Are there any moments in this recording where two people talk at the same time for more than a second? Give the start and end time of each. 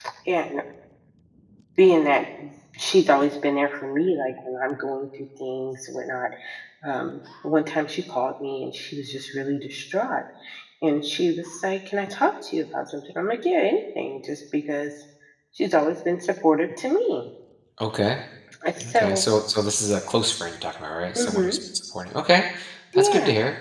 none

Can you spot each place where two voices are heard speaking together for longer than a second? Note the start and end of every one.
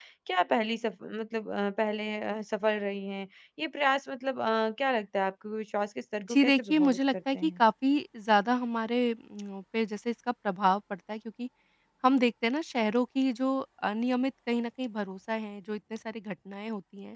6.3-7.6

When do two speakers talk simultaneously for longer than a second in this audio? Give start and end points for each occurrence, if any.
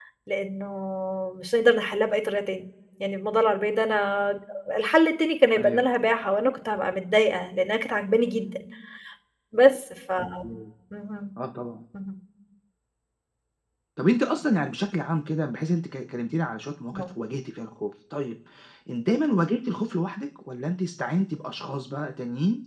none

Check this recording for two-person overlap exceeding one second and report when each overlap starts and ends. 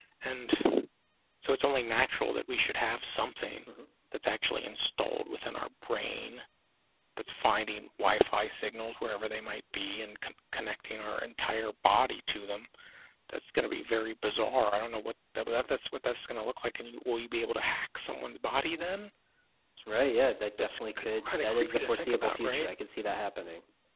20.6-22.7

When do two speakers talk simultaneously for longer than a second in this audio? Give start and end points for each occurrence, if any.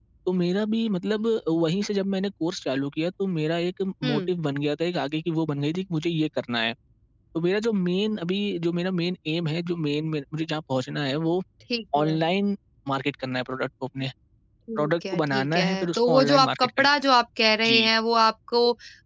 14.8-16.9

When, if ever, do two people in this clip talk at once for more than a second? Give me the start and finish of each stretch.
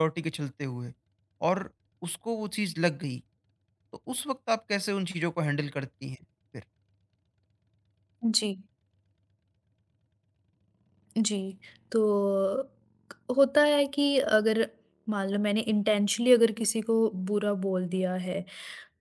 none

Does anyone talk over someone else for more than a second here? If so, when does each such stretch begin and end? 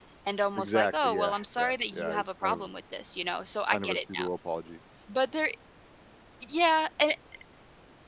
0.6-2.7

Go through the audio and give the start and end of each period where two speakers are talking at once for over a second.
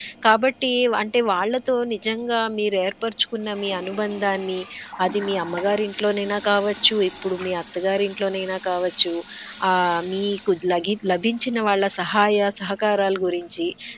none

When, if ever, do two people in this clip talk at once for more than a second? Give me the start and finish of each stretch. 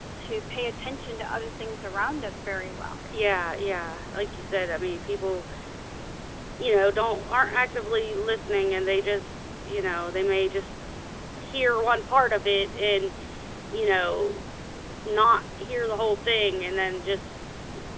none

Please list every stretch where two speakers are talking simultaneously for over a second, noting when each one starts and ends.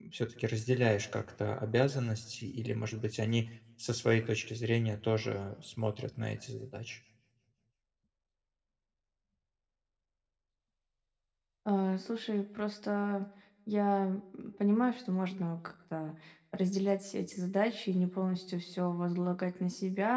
none

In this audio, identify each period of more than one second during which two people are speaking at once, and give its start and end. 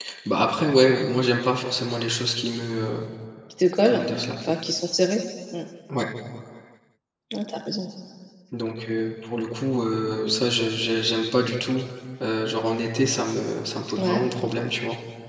none

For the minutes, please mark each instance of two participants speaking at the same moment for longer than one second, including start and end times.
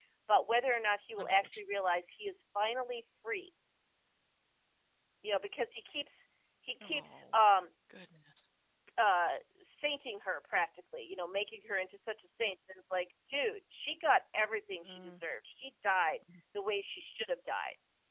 none

